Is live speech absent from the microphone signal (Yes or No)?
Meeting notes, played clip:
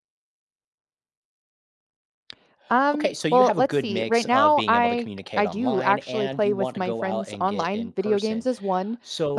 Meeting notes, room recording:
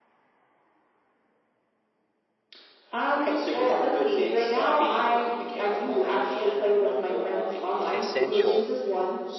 No